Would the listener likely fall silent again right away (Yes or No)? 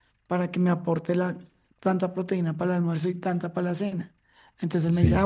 Yes